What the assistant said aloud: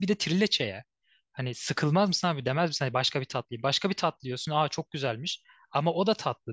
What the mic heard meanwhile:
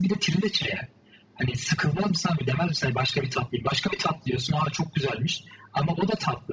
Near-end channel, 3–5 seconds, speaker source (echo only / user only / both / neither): echo only